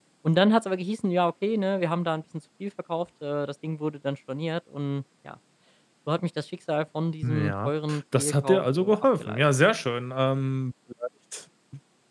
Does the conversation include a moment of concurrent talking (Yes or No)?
Yes